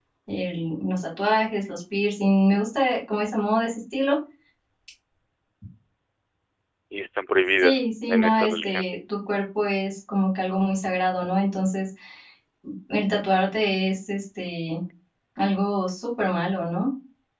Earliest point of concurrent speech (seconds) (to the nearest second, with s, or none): 8 s